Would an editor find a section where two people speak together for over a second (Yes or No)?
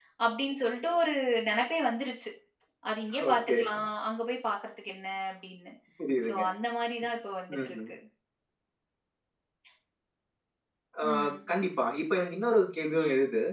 No